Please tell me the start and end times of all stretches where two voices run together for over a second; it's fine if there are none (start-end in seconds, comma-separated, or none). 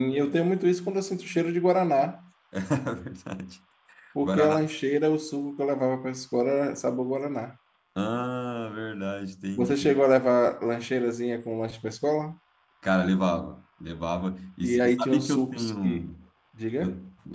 14.6-16.0